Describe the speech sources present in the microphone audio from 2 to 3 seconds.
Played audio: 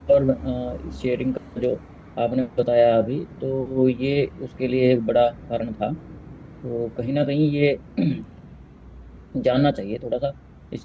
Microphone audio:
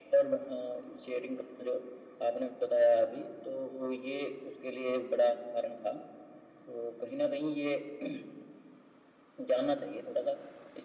echo only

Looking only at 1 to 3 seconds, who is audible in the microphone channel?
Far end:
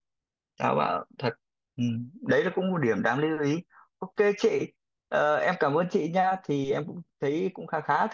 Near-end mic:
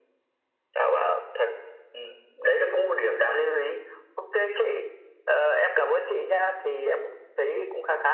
echo only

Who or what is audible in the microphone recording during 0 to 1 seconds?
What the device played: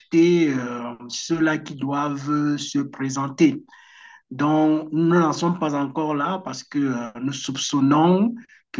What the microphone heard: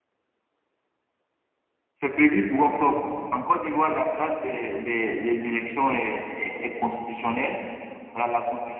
neither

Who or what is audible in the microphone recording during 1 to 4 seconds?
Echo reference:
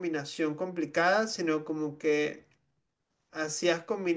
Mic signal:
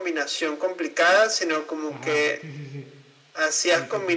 both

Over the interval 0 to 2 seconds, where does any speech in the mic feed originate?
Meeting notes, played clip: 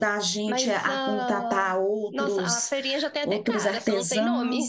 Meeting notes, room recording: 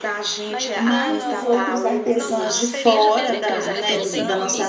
both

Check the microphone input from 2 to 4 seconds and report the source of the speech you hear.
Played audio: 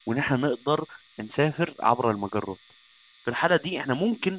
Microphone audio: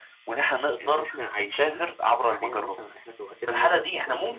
both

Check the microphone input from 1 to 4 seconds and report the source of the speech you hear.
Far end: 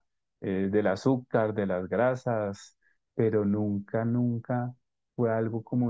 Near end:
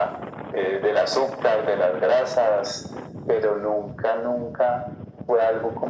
echo only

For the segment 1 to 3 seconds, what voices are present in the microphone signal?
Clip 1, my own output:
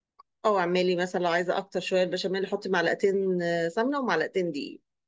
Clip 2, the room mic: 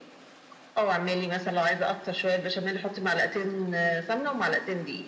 echo only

